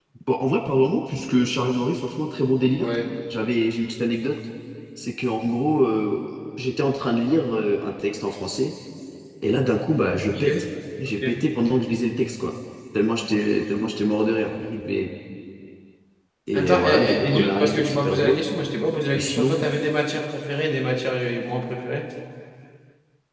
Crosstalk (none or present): present